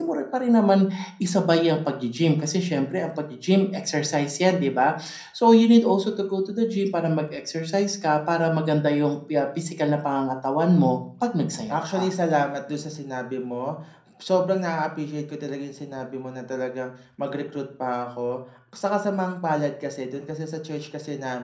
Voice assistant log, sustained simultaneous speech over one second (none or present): none